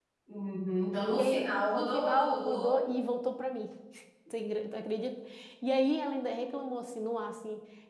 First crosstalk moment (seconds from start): 1.1 s

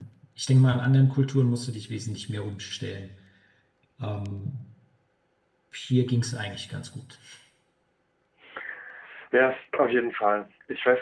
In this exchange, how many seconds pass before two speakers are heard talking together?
none

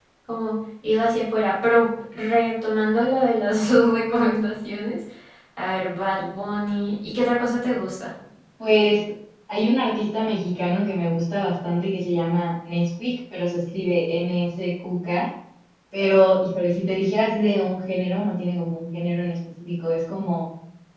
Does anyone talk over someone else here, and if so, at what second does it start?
none

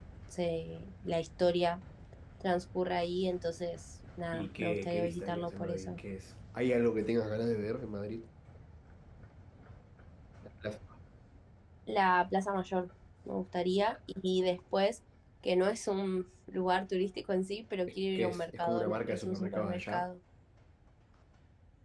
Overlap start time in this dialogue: 4.3 s

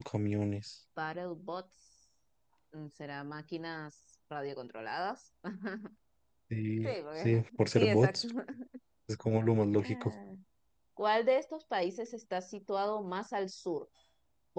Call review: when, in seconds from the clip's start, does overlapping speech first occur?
6.8 s

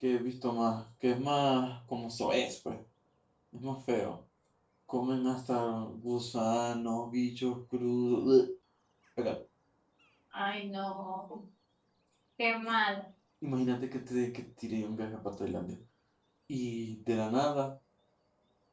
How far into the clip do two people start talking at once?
none

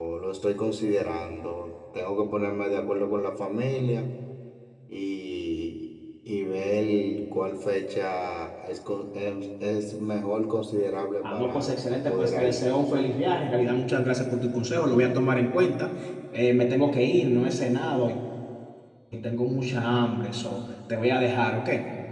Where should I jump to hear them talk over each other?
11.2 s

